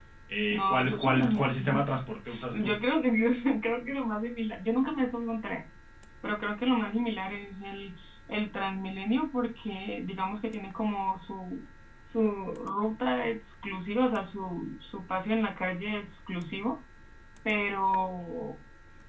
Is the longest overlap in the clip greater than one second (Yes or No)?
Yes